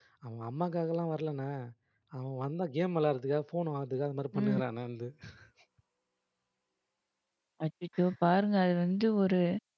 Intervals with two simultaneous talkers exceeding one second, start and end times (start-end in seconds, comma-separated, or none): none